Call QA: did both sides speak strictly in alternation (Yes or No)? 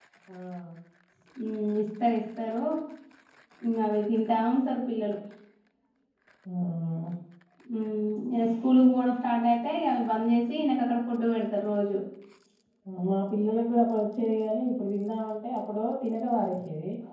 Yes